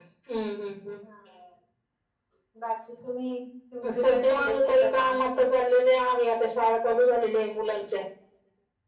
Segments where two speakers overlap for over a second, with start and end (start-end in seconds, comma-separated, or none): 4.0-5.2